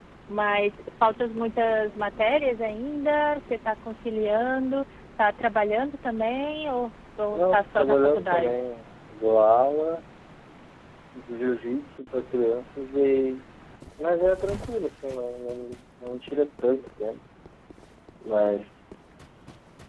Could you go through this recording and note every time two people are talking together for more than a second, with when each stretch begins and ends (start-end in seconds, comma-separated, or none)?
7.3-8.6